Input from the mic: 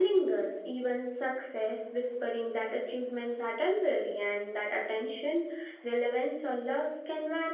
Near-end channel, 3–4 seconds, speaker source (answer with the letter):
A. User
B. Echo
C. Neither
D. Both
A